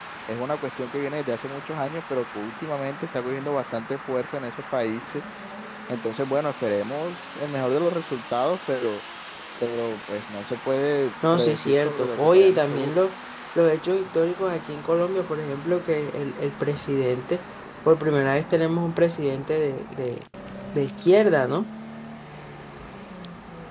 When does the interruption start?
11.2 s

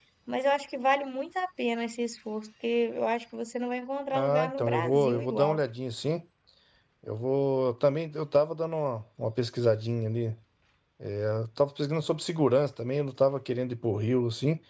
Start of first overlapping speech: 4.1 s

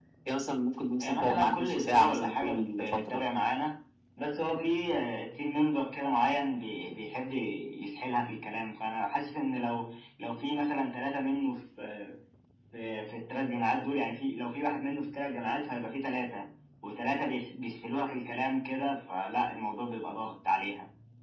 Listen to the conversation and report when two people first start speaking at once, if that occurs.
1.0 s

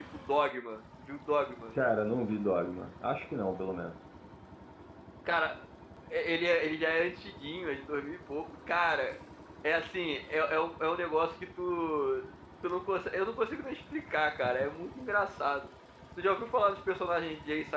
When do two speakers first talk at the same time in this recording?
none

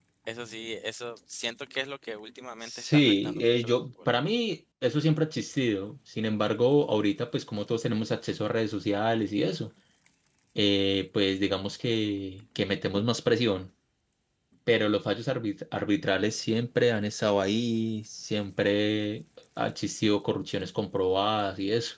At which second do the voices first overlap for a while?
2.6 s

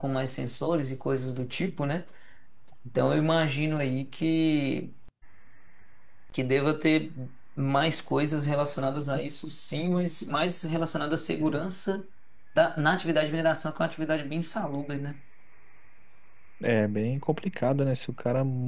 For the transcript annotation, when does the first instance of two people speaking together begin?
none

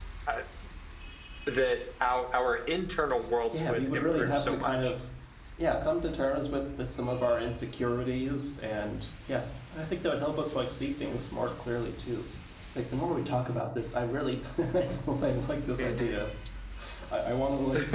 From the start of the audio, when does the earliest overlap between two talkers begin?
3.5 s

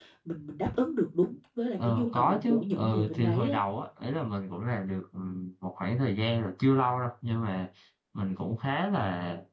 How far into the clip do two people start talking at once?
1.8 s

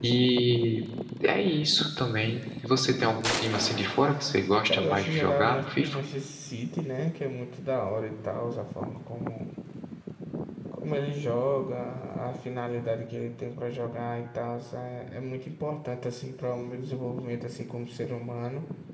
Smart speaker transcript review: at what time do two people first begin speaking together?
4.7 s

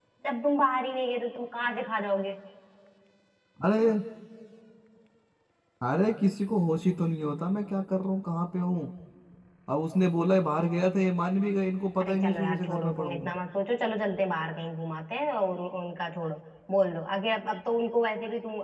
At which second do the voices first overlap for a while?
12.0 s

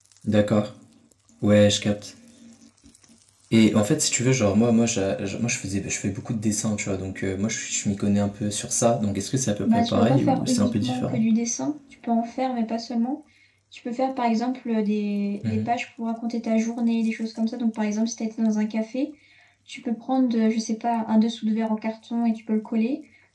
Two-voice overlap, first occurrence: 9.6 s

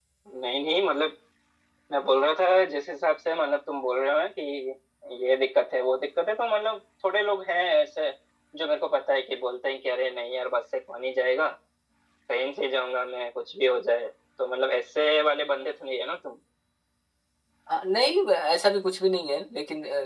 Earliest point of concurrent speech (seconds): none

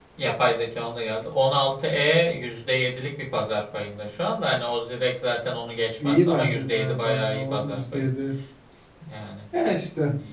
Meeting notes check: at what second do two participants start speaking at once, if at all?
6.0 s

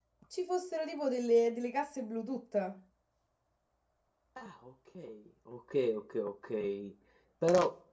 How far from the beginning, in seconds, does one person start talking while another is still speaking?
none

